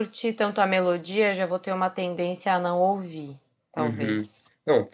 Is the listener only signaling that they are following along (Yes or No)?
No